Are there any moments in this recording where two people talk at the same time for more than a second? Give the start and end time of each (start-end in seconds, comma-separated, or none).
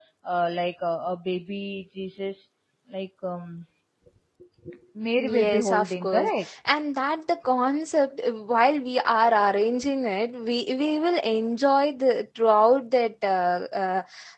5.2-6.5